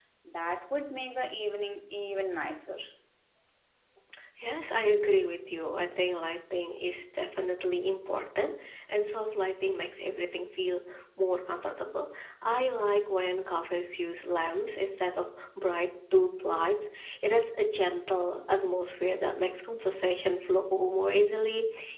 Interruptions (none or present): none